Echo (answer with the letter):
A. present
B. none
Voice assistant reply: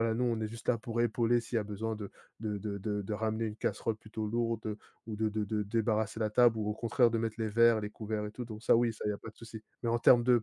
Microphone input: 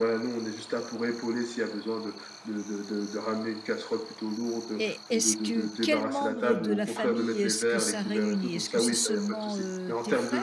A